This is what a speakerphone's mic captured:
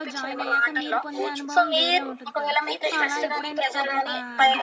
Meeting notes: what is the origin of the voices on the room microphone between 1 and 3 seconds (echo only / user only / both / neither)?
both